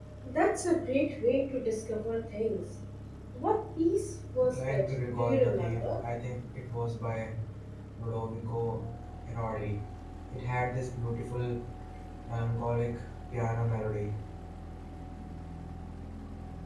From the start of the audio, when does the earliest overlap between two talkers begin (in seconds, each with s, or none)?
4.4 s